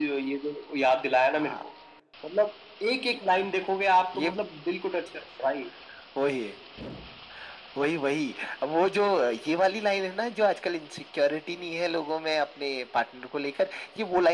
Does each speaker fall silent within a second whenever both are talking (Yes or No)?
Yes